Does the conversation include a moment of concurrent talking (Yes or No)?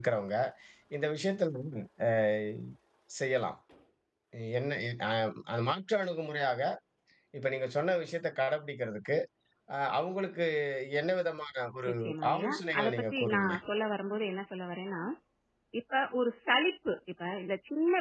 Yes